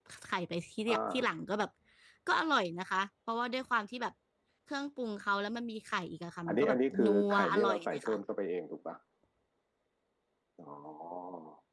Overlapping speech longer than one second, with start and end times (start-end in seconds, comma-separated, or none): 6.5-8.2